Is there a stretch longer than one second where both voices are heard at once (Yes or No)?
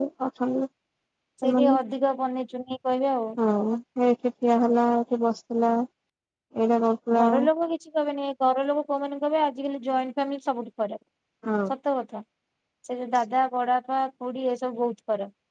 No